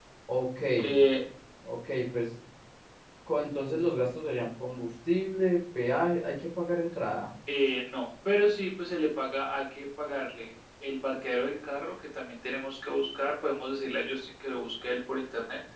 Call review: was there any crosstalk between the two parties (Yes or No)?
No